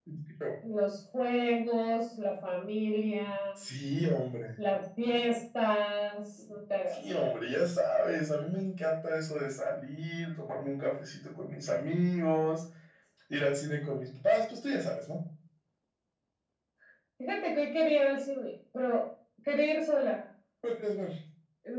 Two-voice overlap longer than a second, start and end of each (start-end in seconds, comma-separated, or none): none